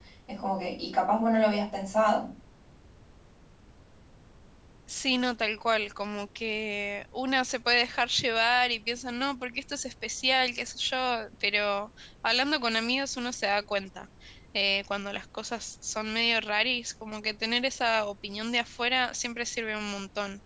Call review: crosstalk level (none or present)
none